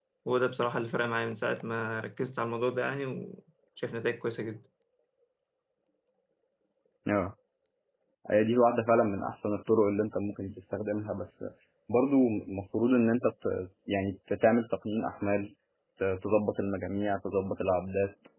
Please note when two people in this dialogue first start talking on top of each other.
none

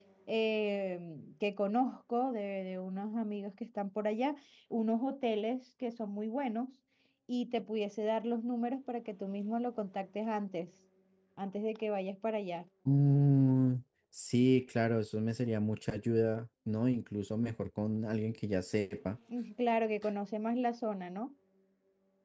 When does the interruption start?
none

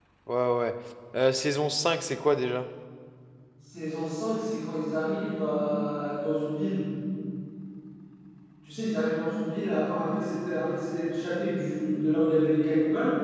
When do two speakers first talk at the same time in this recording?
none

